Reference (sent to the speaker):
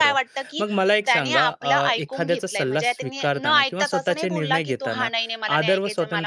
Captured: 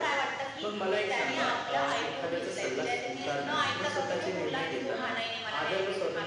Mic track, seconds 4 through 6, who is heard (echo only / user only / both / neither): echo only